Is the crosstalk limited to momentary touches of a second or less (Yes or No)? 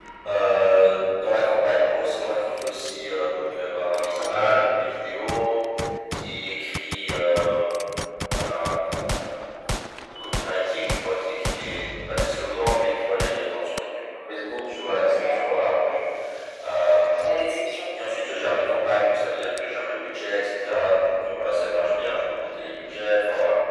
Yes